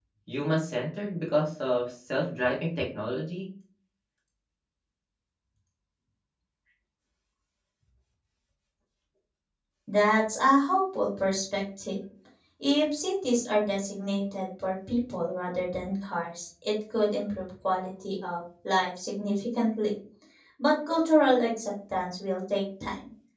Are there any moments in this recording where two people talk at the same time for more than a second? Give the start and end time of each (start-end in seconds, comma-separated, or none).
none